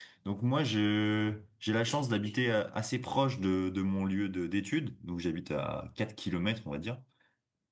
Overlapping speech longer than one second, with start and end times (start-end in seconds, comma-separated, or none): none